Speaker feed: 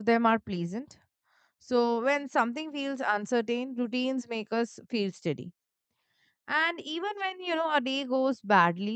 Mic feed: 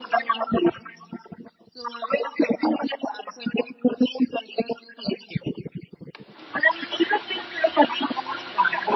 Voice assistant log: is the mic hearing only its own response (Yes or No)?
Yes